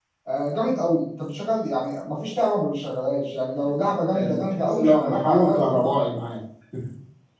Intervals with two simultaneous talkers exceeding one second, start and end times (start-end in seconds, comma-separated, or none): 3.6-6.0